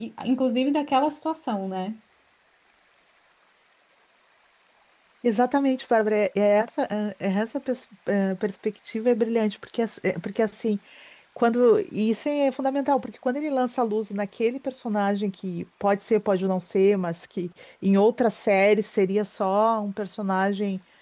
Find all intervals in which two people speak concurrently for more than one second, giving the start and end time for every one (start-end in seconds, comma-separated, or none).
none